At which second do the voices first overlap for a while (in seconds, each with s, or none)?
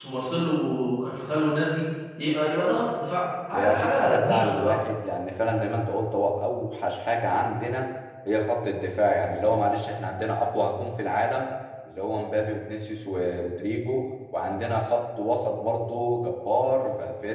3.5 s